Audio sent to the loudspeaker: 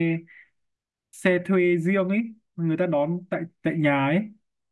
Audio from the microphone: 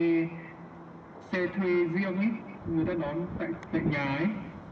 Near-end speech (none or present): none